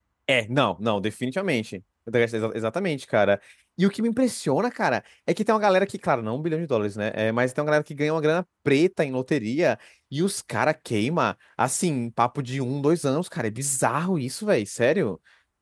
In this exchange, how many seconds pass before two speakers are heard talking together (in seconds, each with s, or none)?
none